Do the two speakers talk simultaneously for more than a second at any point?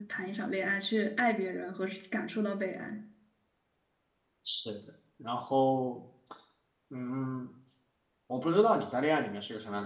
No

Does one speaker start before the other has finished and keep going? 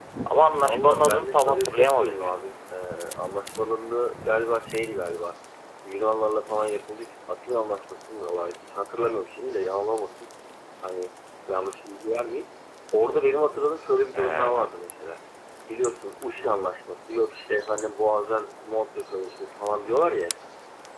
Yes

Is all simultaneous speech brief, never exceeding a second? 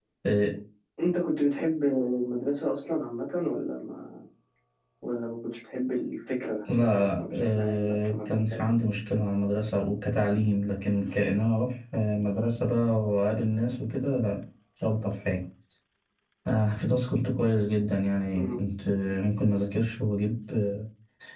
No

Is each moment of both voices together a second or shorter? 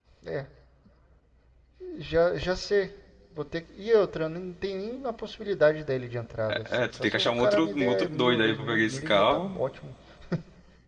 No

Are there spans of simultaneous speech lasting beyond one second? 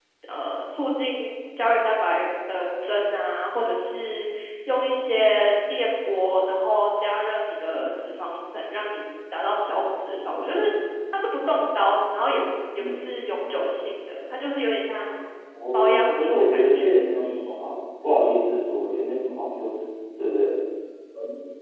Yes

